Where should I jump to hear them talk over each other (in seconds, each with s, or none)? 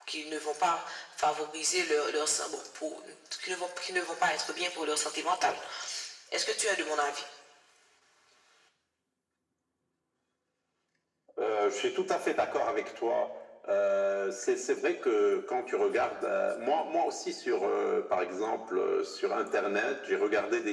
none